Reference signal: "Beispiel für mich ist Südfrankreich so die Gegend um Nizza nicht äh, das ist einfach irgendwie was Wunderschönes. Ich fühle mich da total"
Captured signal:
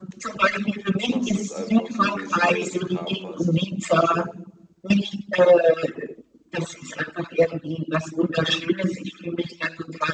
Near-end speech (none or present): present